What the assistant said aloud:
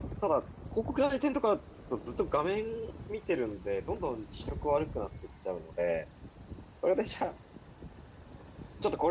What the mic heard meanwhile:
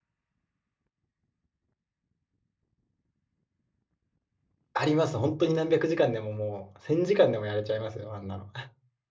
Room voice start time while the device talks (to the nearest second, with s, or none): 5 s